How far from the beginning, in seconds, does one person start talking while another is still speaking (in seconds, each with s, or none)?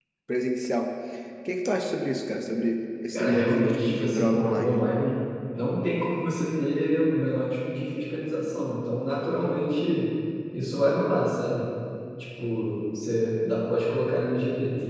3.1 s